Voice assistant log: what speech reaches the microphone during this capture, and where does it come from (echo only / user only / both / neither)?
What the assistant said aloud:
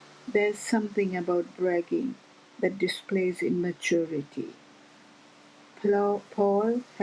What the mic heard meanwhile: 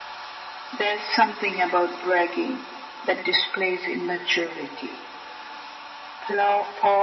echo only